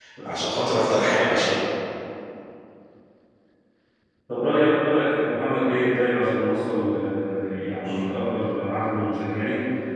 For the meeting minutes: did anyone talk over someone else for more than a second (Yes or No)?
No